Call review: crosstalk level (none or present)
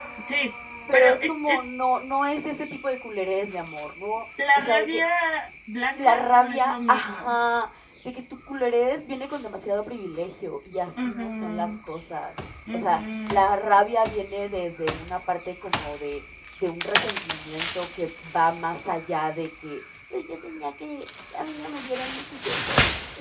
present